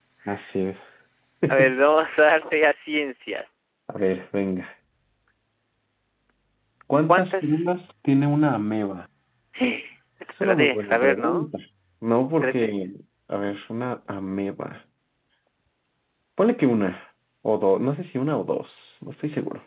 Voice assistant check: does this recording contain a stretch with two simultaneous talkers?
Yes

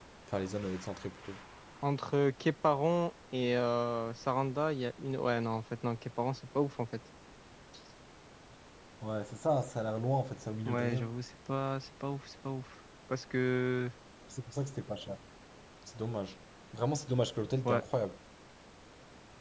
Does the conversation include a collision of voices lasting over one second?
No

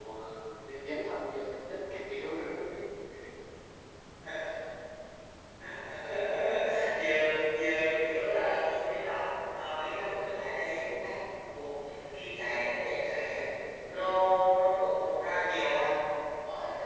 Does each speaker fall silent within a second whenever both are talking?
Yes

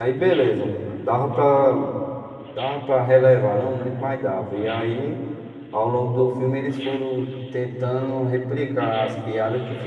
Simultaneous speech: No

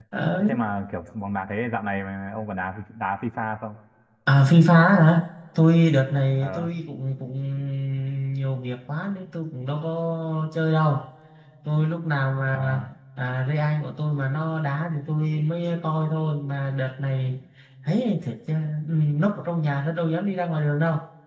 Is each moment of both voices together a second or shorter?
Yes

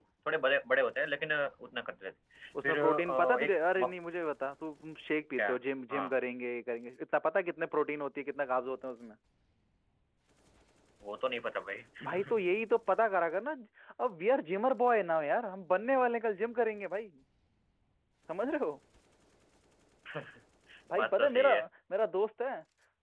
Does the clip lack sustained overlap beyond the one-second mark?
No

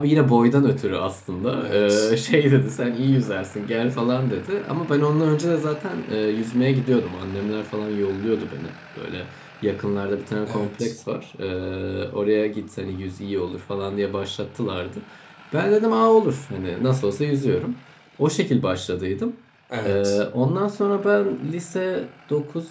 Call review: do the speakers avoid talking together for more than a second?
Yes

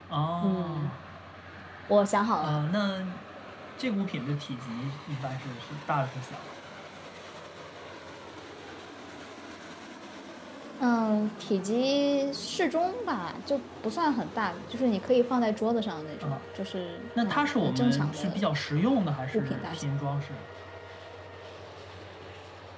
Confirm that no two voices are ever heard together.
No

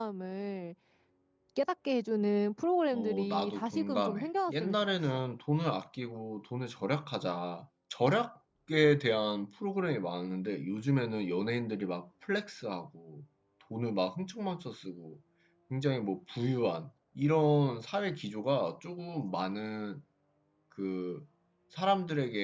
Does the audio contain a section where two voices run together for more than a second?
Yes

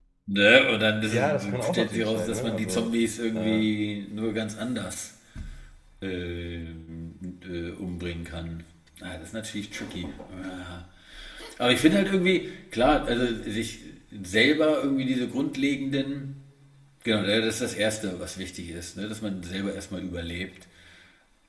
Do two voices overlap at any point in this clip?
Yes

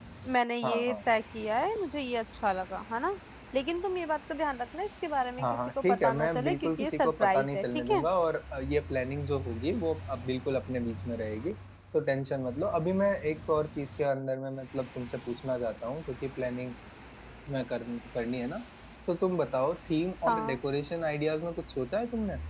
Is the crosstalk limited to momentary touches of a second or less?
No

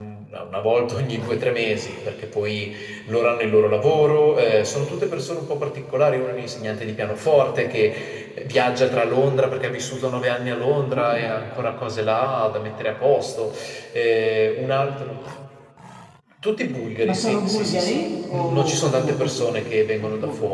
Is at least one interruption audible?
Yes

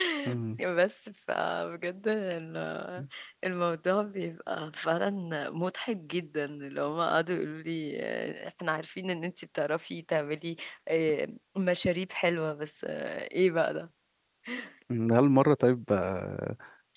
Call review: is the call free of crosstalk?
Yes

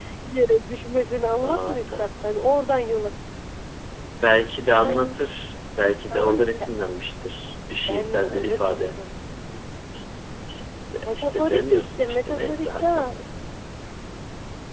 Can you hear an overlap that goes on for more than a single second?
Yes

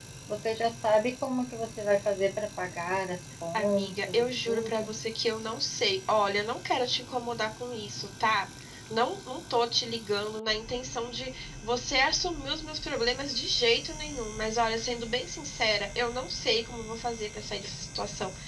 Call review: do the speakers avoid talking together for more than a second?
No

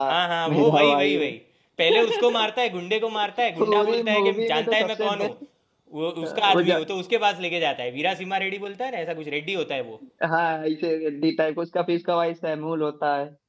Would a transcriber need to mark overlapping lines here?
Yes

